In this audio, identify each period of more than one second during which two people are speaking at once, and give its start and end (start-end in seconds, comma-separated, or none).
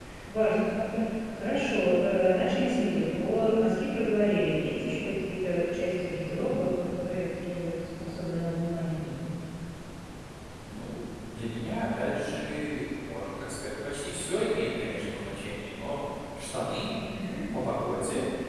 none